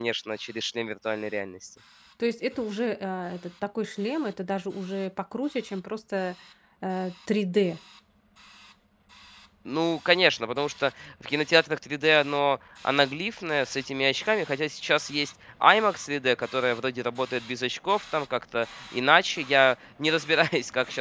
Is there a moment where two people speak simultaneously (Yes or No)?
No